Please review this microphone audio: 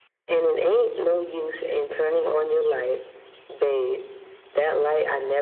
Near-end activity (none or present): none